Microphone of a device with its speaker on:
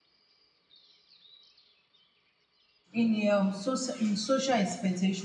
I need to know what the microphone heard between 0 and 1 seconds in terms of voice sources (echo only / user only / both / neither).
neither